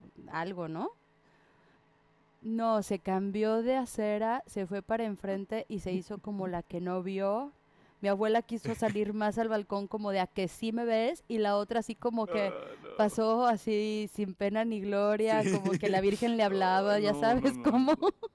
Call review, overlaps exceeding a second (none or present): present